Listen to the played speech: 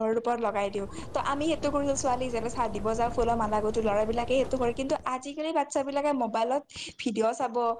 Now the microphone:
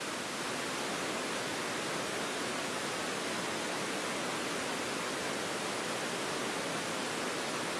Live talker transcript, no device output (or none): none